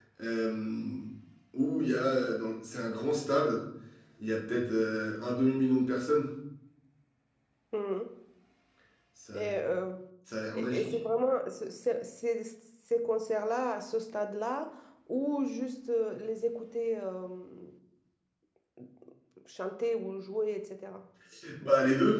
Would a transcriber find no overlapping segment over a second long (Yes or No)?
Yes